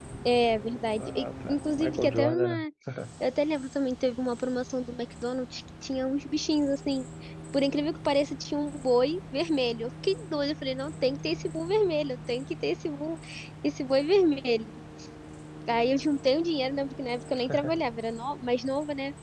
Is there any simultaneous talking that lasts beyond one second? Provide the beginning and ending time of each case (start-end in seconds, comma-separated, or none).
1.0-2.6